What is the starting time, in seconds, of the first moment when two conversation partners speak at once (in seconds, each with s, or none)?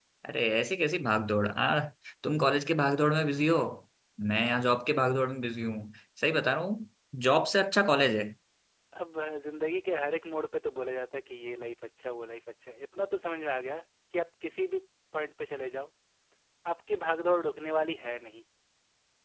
none